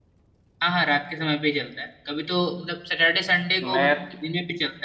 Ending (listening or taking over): listening